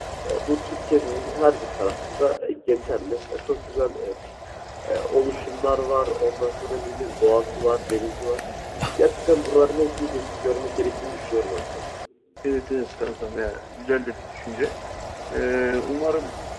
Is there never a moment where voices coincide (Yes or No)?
Yes